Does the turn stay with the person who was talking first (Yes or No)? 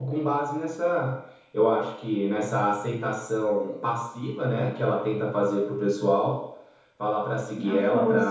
Yes